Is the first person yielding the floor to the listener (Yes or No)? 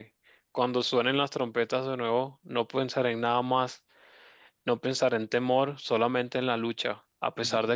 No